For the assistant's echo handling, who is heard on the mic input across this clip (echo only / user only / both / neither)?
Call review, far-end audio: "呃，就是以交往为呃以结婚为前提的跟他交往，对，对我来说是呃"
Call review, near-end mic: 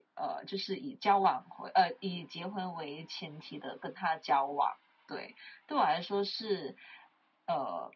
echo only